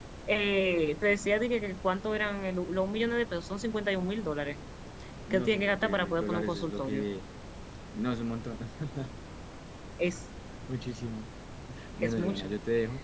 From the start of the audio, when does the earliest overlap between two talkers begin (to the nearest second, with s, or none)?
5 s